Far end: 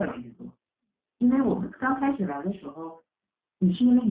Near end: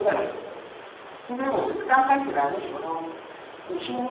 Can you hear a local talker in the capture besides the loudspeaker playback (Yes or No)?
No